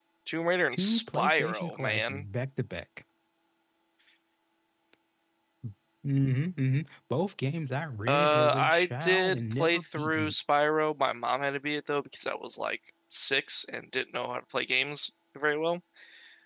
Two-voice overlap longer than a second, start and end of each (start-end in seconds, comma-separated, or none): 0.7-2.2, 8.1-10.3